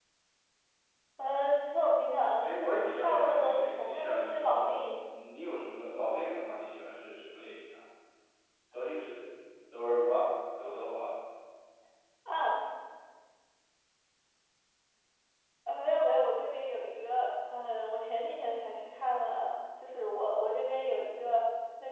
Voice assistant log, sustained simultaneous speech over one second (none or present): present